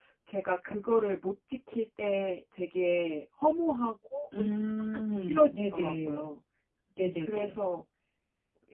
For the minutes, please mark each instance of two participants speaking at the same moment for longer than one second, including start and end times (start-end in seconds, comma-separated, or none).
4.9-6.3